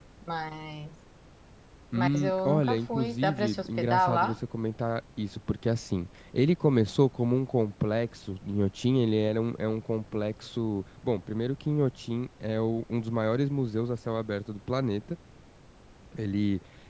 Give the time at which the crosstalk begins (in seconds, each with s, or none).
1.9 s